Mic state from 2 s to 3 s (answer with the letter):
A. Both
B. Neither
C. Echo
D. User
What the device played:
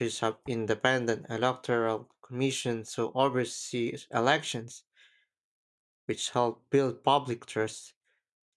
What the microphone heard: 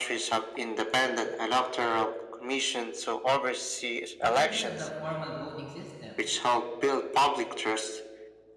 C